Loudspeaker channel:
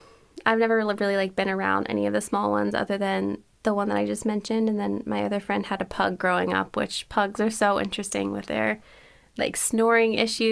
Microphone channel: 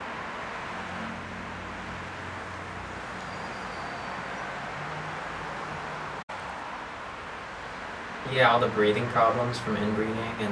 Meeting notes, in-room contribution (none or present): present